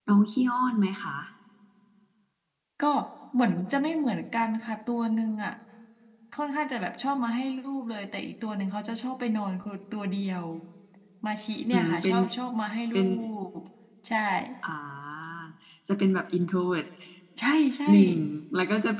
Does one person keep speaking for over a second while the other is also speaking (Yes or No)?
No